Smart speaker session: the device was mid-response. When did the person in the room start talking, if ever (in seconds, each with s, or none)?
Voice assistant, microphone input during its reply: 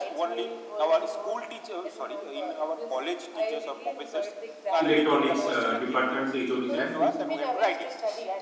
4.8 s